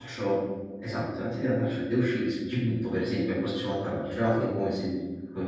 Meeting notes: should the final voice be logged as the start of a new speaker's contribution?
No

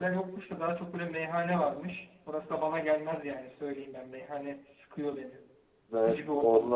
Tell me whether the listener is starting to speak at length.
Yes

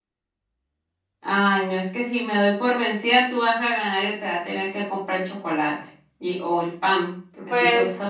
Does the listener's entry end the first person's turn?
Yes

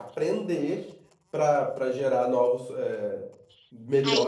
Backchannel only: No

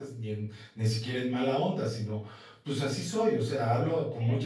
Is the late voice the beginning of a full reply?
Yes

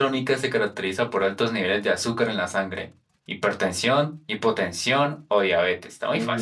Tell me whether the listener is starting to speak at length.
Yes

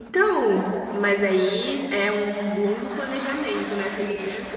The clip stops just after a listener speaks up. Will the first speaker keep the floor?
No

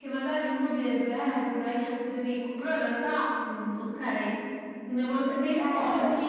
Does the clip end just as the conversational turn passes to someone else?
No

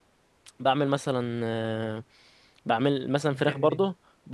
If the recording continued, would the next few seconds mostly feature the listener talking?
No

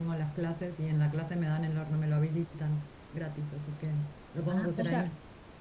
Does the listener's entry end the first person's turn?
Yes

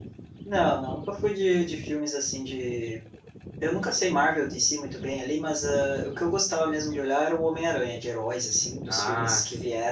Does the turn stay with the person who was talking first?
Yes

